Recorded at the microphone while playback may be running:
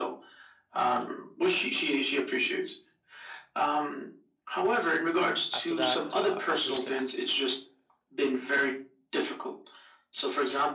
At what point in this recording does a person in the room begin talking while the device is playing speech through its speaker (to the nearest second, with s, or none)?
6 s